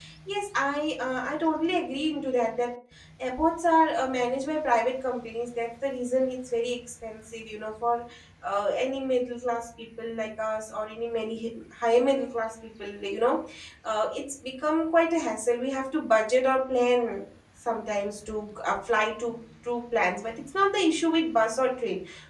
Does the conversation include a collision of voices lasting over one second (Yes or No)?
No